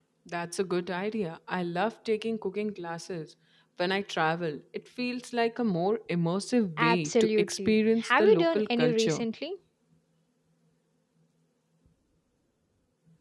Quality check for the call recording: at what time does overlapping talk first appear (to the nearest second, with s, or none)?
7 s